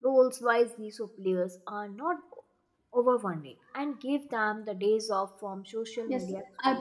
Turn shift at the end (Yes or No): Yes